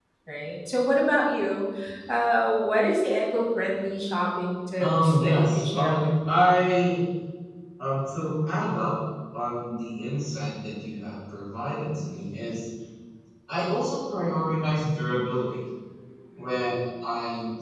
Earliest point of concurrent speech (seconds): 4.8 s

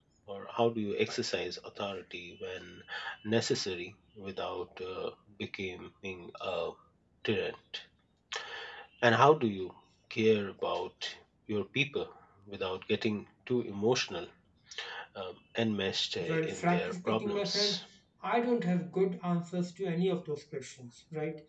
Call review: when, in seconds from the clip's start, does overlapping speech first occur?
16.2 s

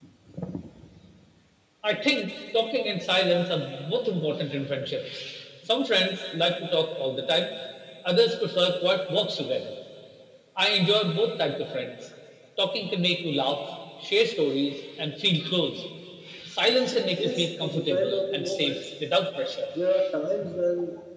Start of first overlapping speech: 17.2 s

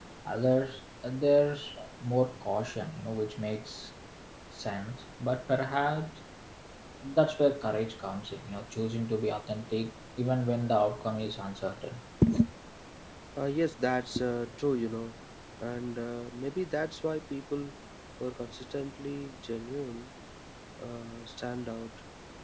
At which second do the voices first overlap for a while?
none

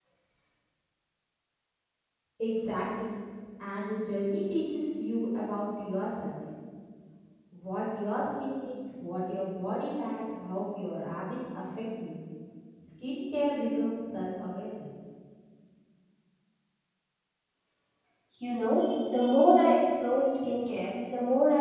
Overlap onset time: none

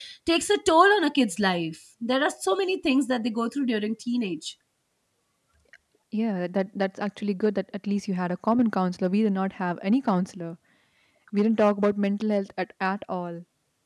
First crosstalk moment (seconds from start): none

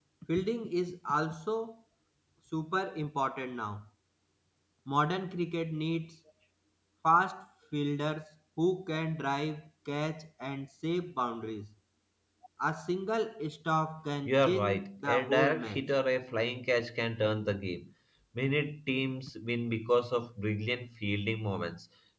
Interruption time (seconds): 14.2 s

